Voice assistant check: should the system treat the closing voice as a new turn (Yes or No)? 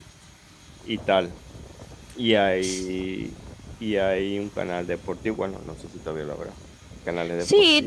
Yes